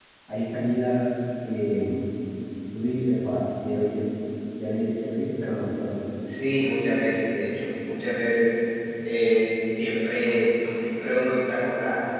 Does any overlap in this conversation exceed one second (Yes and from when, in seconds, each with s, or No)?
No